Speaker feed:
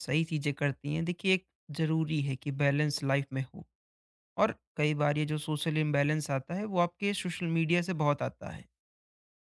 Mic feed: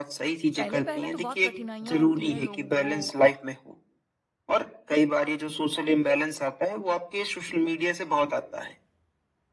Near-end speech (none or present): present